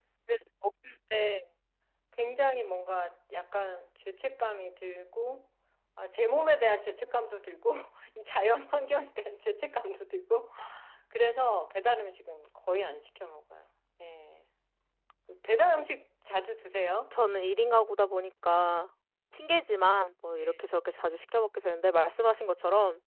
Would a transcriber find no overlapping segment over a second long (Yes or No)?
Yes